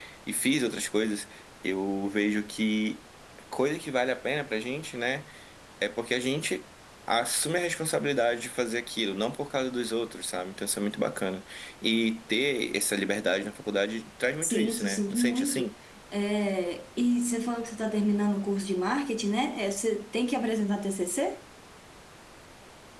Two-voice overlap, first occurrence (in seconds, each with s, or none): 14.4 s